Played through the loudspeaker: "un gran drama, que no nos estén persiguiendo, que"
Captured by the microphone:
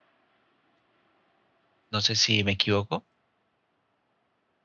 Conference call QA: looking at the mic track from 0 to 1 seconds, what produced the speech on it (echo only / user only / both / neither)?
neither